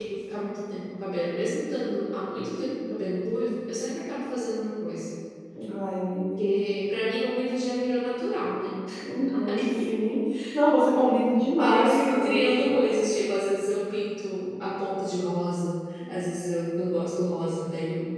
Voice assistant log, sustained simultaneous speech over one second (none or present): present